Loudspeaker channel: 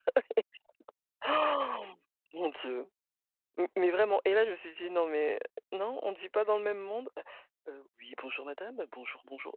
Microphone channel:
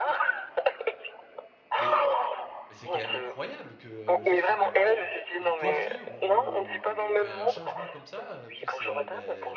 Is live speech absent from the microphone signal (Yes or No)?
No